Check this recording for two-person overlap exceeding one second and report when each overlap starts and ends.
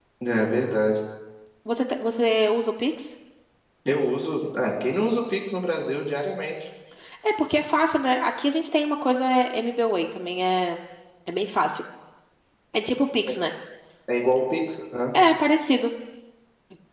none

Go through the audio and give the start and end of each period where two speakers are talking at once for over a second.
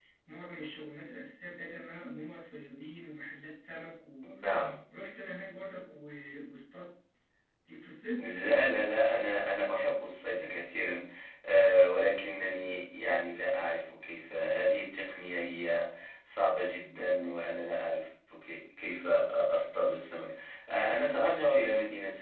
none

